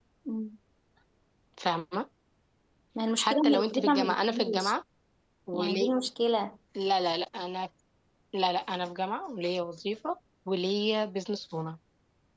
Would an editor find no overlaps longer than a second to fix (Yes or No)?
No